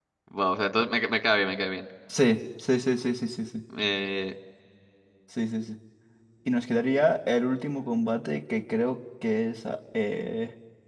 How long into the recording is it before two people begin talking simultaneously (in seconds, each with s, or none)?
none